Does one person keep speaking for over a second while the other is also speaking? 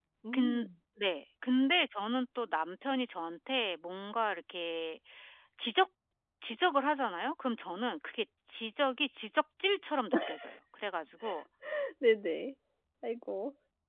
No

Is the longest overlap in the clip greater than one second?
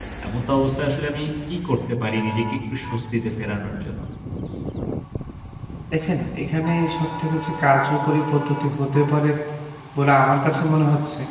No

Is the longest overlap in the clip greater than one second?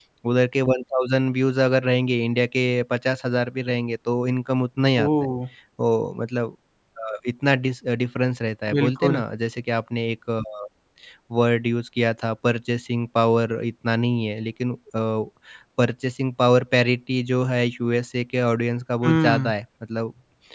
No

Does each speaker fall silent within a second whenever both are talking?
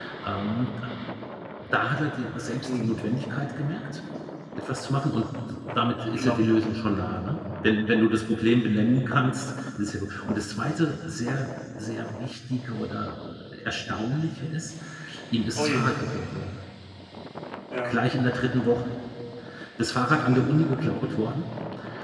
Yes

